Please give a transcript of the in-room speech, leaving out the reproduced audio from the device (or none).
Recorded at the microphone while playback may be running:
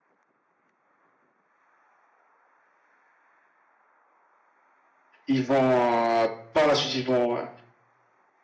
ils vont euh, par la suite, ils vont euh,